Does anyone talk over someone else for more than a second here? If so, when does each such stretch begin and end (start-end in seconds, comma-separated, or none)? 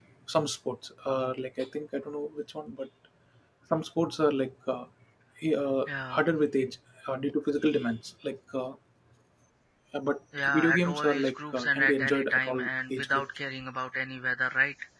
10.5-13.3